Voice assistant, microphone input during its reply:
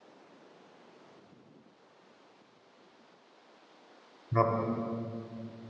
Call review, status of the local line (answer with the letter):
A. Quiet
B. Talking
B